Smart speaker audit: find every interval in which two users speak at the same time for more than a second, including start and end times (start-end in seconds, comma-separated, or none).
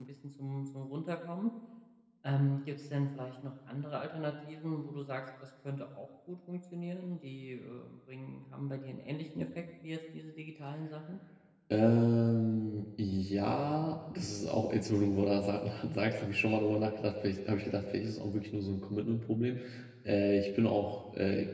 none